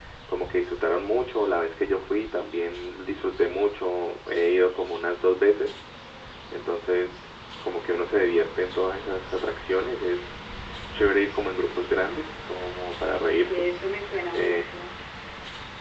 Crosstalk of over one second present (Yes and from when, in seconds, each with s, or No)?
No